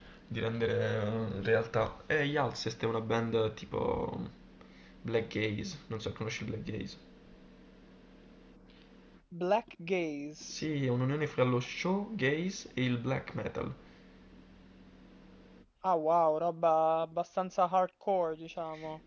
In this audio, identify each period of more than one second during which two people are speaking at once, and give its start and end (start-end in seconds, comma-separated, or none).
none